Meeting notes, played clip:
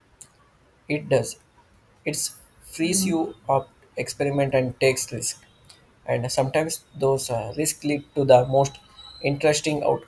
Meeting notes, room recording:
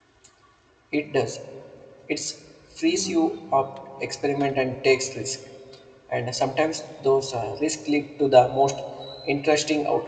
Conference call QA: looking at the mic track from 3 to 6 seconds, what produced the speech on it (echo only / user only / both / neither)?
echo only